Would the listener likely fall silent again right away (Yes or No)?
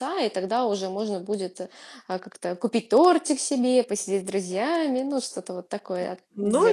No